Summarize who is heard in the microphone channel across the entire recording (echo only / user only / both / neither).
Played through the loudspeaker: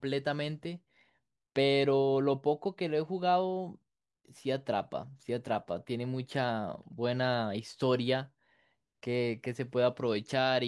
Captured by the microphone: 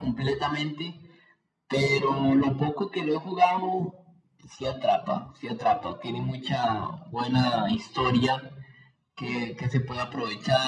echo only